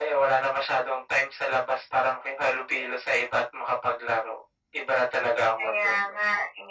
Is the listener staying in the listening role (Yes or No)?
No